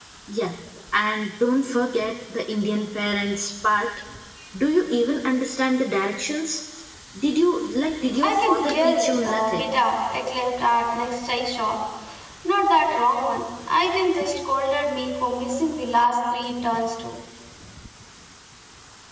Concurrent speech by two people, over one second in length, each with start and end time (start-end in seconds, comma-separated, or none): 8.2-9.6